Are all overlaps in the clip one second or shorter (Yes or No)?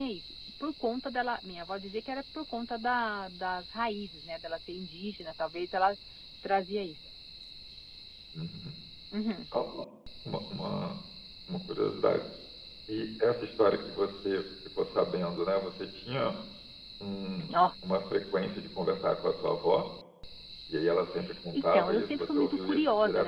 No